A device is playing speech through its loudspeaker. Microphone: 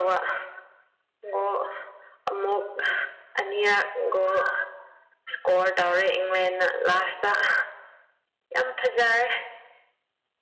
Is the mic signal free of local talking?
Yes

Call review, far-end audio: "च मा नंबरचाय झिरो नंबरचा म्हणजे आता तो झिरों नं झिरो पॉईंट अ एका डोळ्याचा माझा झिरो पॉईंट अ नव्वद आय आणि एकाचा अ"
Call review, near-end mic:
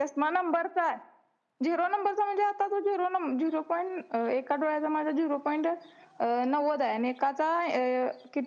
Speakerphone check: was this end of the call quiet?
Yes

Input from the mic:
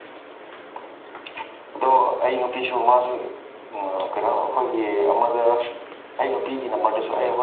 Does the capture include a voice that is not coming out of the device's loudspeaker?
No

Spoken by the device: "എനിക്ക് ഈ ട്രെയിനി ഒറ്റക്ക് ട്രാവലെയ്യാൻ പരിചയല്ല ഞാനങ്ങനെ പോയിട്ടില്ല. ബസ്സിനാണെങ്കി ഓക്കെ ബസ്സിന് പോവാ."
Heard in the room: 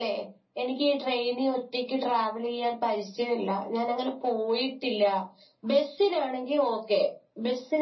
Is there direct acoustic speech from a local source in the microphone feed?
No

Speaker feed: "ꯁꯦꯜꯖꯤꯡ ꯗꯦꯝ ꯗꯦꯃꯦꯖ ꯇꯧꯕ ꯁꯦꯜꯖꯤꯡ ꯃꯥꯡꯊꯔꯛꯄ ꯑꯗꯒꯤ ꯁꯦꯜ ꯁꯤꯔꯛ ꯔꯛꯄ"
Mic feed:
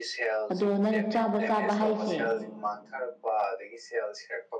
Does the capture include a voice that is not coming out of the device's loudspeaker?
Yes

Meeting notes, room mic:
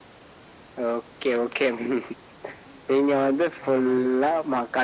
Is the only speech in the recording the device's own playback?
No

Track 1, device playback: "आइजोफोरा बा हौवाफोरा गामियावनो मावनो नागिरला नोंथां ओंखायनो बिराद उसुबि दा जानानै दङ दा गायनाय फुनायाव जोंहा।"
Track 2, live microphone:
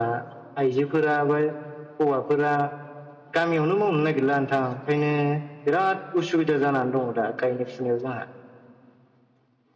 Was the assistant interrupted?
No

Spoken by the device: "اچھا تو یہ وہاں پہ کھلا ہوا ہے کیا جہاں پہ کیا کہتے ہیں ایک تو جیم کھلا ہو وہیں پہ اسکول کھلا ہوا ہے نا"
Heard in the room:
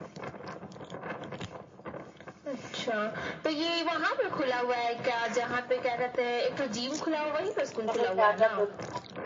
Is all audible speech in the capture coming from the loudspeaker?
No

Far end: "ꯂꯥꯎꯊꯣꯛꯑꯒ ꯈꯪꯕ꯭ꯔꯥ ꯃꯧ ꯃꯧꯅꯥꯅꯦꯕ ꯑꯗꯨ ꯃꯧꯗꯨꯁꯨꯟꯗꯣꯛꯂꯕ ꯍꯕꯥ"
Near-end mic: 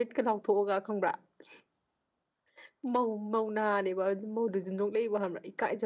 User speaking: No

